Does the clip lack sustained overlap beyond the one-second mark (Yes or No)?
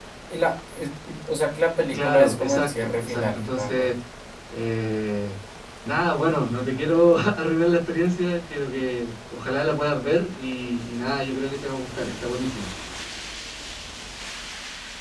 No